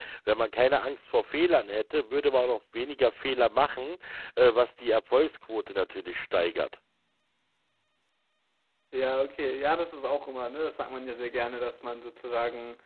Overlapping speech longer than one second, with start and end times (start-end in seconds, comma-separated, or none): none